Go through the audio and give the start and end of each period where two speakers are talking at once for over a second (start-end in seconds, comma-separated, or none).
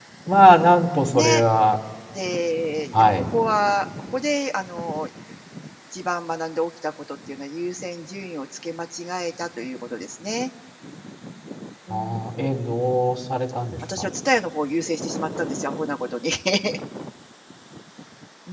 none